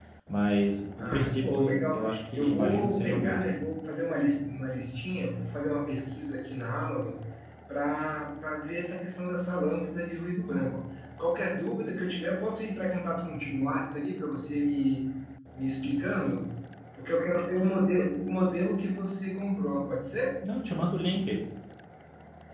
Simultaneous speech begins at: 1 s

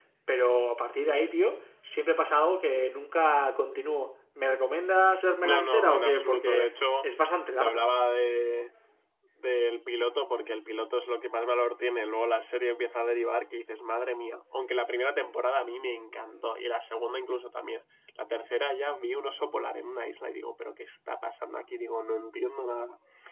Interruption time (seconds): 5 s

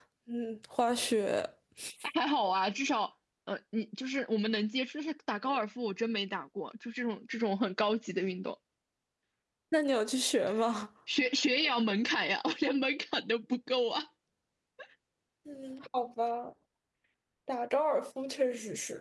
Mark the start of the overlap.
none

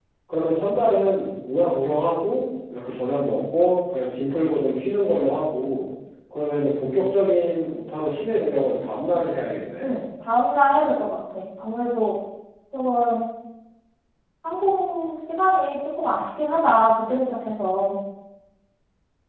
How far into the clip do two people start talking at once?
none

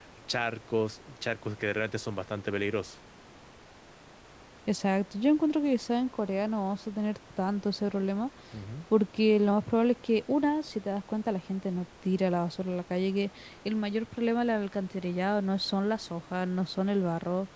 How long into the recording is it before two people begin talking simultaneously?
none

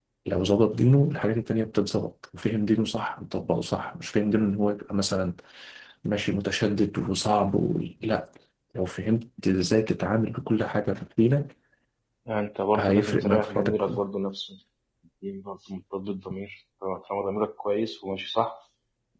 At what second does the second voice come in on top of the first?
13 s

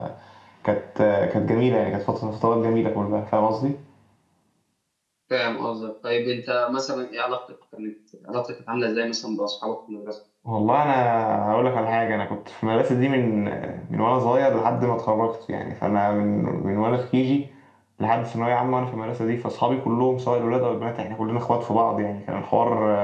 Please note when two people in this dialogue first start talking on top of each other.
none

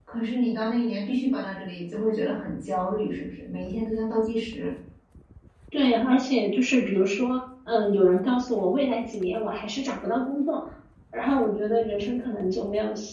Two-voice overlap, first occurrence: none

